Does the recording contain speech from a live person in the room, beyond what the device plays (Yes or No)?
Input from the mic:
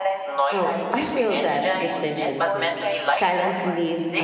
Yes